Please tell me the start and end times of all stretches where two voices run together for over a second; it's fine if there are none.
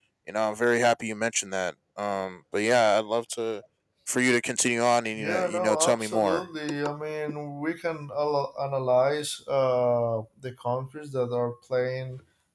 5.2-6.4

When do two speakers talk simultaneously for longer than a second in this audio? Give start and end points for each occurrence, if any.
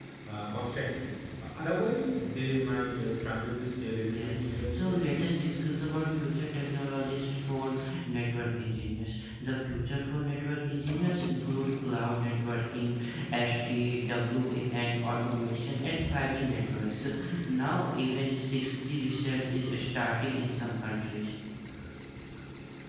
4.0-5.2

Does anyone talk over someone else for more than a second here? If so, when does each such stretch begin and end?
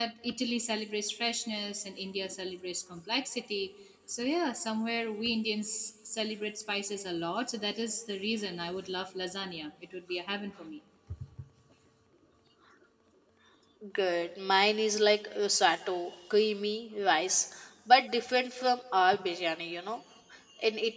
none

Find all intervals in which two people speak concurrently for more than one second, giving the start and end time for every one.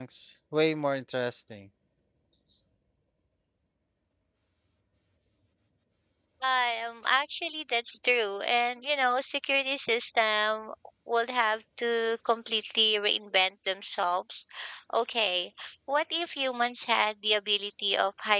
none

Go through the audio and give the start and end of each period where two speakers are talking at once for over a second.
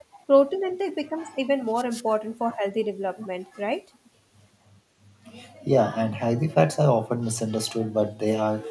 none

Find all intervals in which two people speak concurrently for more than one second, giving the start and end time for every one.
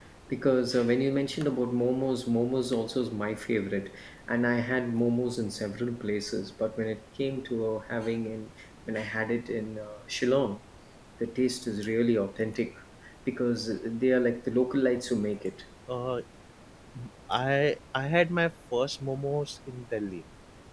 none

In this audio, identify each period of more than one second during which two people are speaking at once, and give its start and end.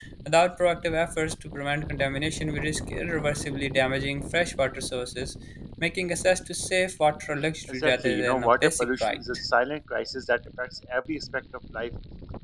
7.7-9.2

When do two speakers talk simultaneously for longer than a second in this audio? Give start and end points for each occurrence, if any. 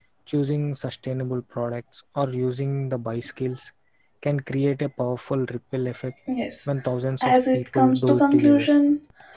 7.2-8.7

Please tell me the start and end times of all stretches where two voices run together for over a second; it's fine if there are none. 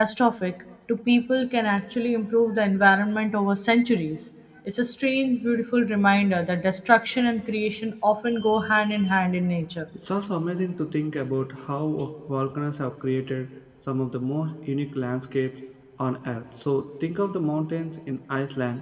none

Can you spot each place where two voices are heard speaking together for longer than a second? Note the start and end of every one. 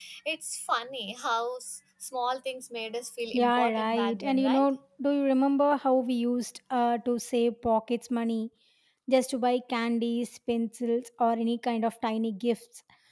3.3-4.7

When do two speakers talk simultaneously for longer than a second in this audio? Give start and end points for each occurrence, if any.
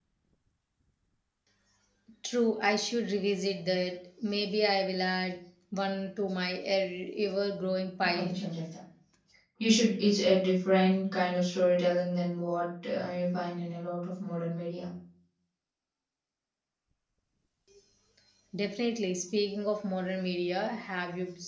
none

